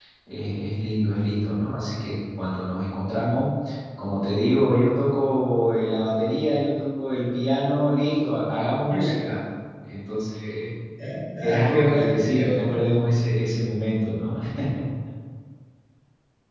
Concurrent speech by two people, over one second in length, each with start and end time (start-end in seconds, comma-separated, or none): 11.4-12.8